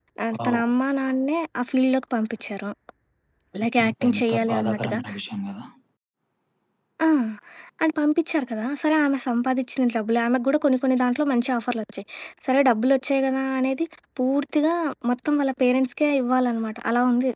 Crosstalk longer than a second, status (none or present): present